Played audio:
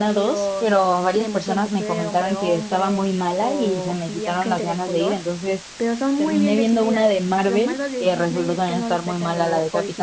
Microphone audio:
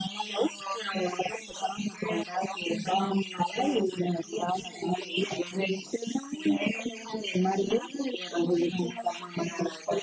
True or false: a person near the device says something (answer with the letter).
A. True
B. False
B